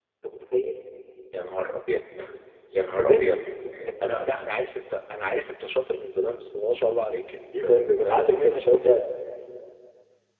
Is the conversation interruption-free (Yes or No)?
No